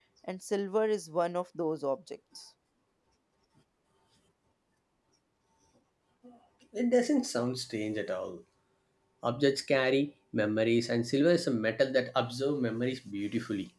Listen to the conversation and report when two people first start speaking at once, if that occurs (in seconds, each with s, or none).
none